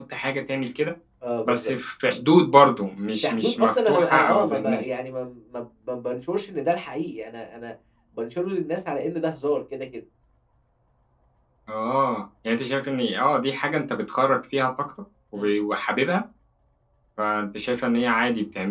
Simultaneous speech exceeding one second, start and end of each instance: 3.2-4.8

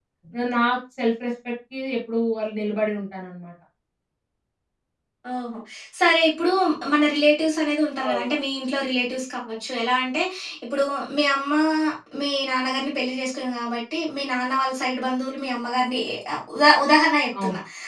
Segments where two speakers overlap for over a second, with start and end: none

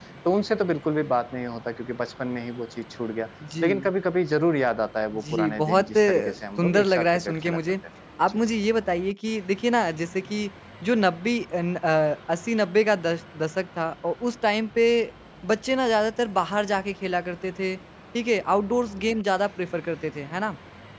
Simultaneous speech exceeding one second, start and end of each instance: 5.1-7.6

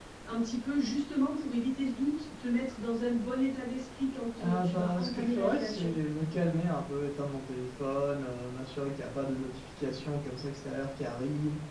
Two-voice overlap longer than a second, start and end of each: 4.4-5.9

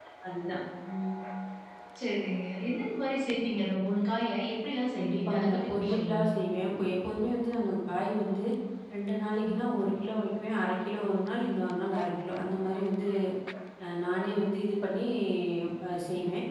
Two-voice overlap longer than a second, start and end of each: 5.0-6.4

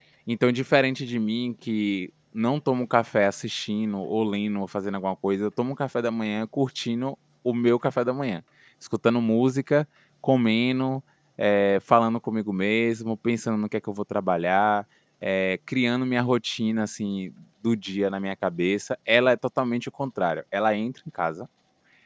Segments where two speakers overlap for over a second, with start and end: none

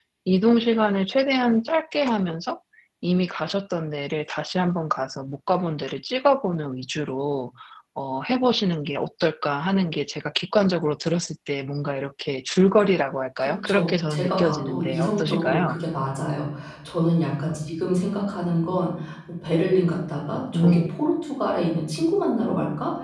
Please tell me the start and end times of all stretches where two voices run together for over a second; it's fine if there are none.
13.4-15.8

